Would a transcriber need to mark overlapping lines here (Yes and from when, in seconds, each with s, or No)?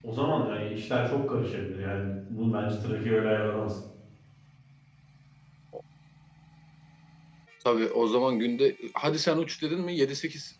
No